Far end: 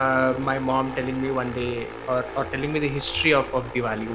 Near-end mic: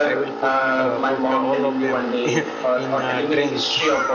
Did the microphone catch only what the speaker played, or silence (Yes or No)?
No